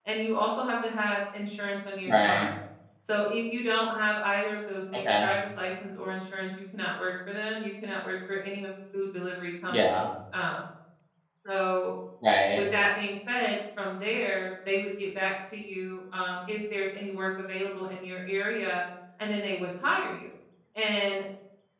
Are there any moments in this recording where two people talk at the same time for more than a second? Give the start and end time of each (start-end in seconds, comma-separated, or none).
none